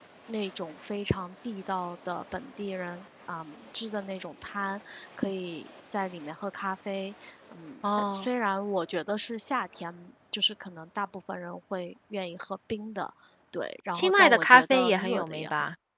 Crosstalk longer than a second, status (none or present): present